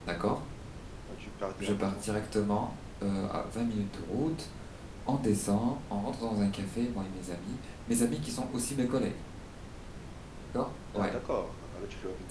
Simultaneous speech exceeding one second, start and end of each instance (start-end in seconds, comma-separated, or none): none